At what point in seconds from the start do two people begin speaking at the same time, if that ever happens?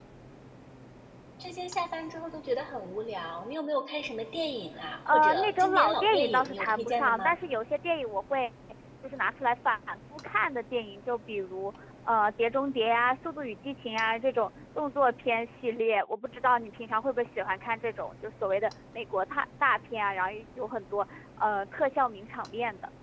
5.0 s

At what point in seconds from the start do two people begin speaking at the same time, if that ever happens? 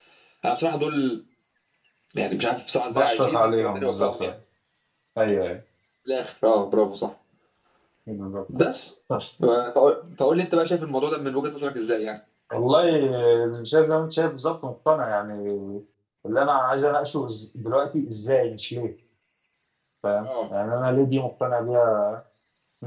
2.9 s

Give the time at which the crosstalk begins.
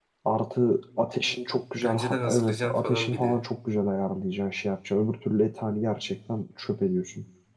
1.8 s

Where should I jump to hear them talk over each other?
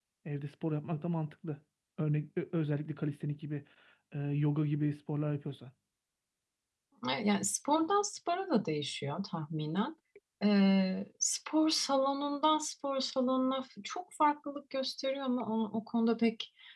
none

